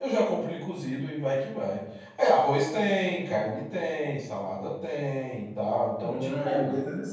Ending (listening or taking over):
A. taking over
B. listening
A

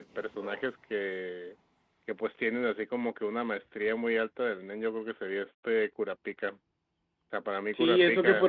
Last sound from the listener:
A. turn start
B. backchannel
A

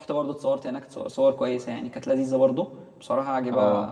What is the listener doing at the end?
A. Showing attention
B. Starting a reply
A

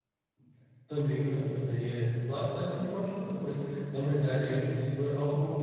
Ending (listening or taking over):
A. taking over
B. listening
B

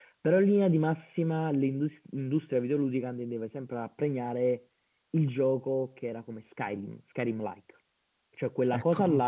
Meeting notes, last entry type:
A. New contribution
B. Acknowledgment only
B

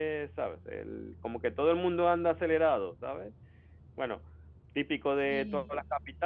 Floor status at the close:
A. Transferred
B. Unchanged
B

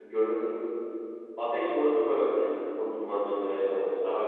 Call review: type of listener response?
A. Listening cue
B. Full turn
B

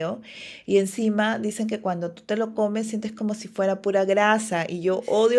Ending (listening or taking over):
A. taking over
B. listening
B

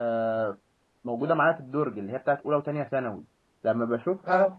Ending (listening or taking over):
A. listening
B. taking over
A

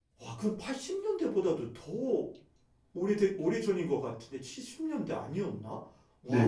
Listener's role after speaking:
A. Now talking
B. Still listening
A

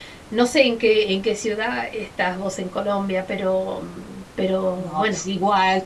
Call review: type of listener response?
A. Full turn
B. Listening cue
A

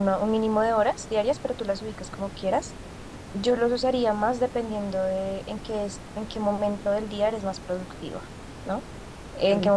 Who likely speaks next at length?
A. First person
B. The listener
A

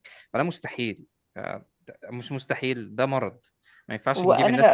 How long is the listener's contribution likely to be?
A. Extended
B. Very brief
A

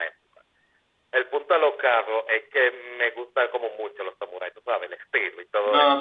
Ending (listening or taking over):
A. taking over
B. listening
A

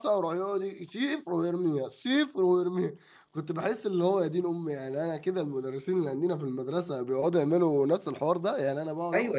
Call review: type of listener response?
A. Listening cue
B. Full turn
B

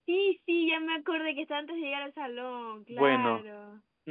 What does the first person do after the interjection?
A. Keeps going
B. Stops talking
B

